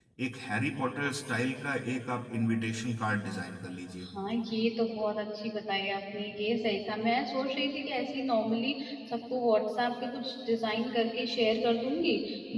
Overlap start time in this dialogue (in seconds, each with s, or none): none